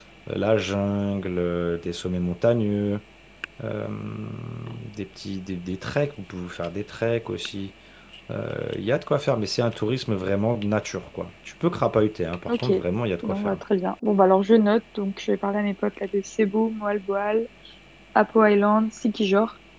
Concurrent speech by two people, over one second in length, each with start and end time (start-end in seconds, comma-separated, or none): none